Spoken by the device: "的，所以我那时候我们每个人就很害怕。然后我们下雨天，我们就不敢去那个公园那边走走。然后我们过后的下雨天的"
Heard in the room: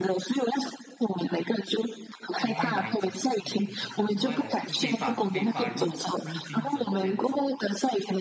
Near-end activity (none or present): present